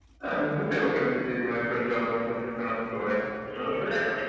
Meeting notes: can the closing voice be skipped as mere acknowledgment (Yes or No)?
No